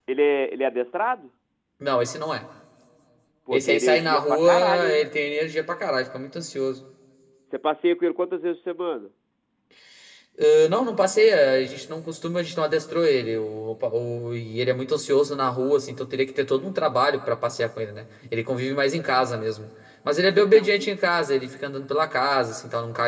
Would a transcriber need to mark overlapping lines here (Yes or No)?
Yes